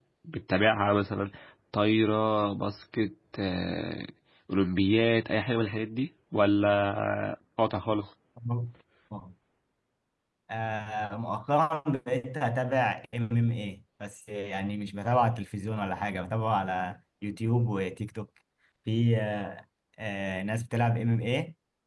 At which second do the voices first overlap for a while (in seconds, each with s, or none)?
none